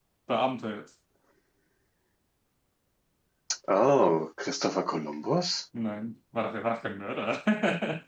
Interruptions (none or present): none